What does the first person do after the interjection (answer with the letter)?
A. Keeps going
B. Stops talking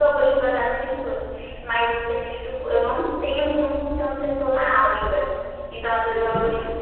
A